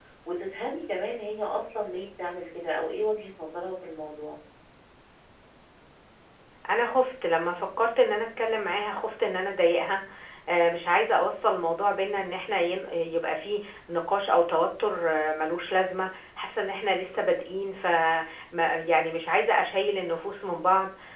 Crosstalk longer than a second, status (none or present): none